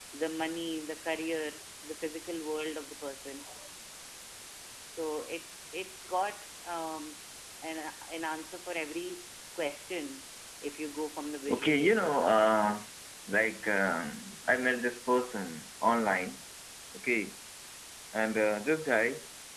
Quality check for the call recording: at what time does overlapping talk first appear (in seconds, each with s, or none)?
11.5 s